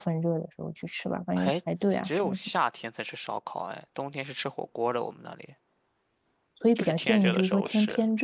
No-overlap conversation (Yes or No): No